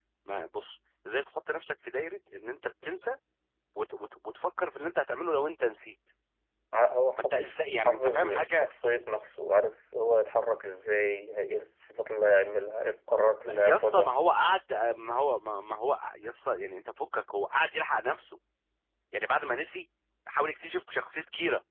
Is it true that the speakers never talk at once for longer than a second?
No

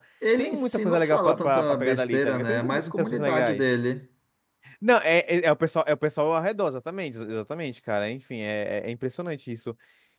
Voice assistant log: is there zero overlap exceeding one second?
No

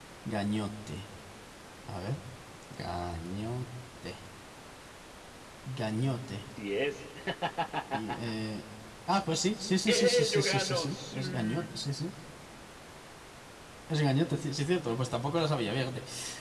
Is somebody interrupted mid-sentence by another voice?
Yes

